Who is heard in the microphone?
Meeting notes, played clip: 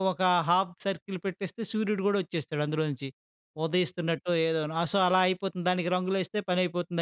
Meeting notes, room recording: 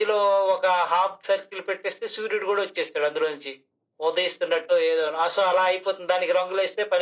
echo only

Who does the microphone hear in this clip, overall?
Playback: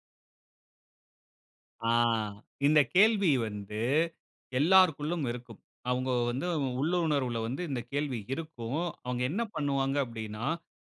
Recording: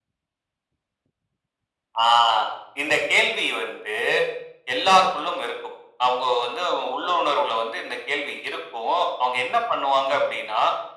echo only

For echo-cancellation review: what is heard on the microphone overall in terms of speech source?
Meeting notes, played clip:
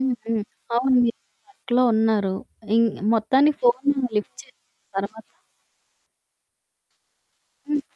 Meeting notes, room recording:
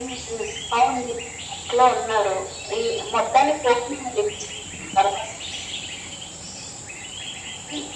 echo only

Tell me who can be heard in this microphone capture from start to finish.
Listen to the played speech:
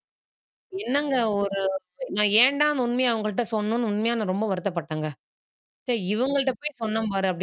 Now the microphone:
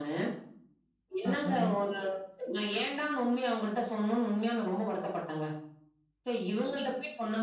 both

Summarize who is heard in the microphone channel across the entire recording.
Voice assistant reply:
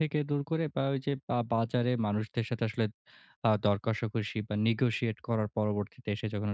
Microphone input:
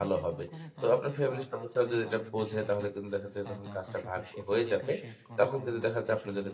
both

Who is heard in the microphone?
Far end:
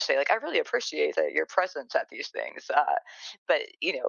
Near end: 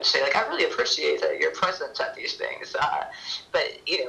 echo only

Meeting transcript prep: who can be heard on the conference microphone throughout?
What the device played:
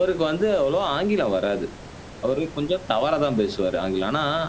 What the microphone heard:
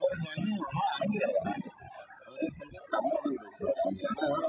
echo only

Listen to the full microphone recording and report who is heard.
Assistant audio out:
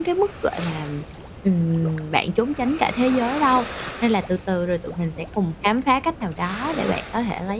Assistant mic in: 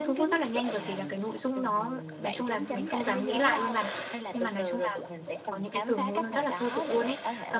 both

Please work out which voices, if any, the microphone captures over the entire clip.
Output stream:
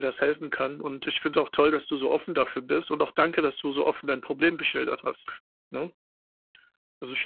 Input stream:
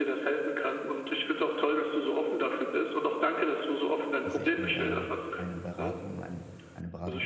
both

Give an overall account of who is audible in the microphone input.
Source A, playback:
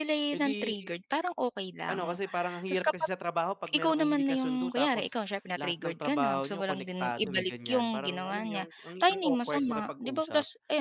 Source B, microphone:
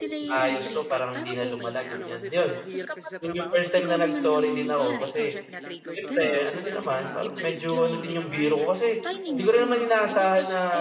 both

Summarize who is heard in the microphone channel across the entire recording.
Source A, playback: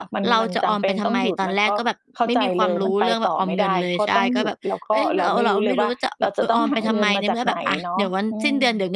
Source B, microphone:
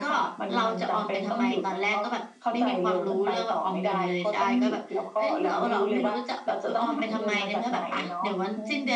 echo only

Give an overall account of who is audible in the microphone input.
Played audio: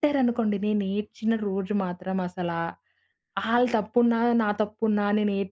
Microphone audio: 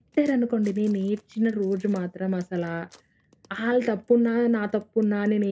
echo only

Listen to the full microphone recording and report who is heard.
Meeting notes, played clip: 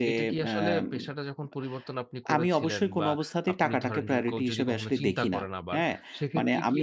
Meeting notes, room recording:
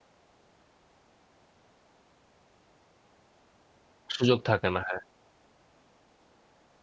user only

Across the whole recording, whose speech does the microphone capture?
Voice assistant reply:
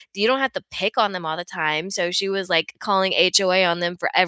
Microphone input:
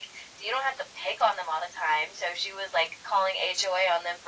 echo only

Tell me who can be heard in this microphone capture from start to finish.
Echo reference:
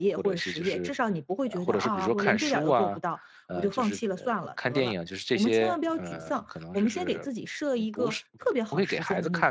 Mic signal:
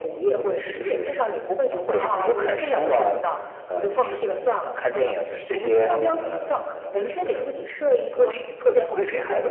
echo only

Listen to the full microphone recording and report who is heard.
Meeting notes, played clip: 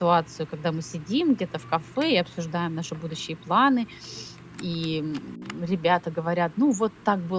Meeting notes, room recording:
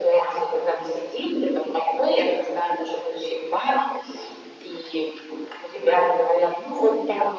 echo only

